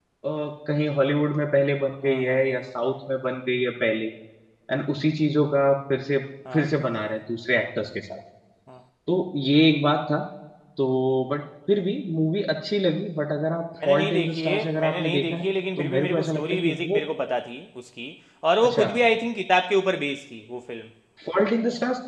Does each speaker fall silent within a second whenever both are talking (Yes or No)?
No